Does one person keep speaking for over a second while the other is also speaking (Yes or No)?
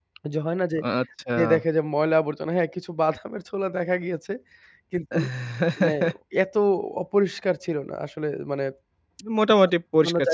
No